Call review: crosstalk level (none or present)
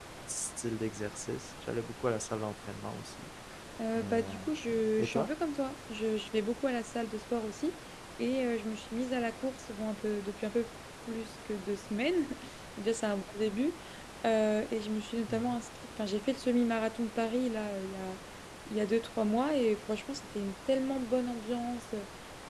present